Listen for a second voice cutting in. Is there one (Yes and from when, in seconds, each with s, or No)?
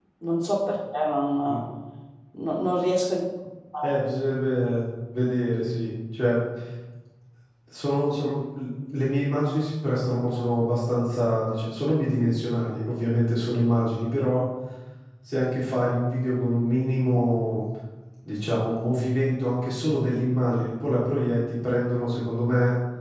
No